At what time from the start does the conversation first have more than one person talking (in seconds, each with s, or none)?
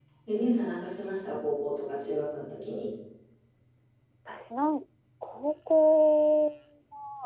none